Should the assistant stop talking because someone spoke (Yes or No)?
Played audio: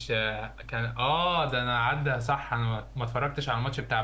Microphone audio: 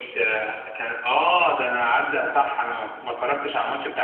No